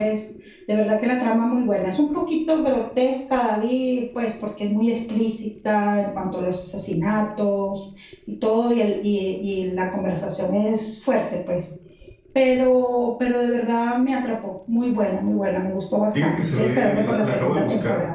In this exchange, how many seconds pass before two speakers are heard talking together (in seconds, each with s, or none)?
16.1 s